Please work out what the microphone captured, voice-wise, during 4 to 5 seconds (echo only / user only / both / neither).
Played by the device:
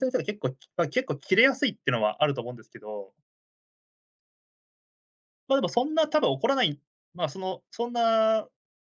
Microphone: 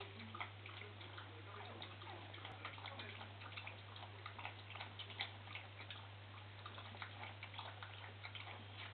neither